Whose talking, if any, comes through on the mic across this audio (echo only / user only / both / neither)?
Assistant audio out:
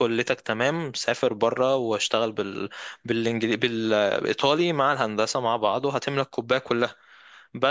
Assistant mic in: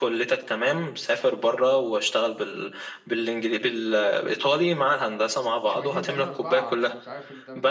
both